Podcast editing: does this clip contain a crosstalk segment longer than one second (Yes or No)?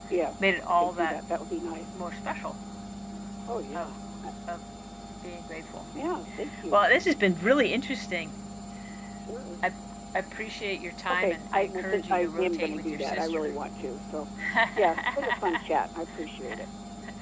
Yes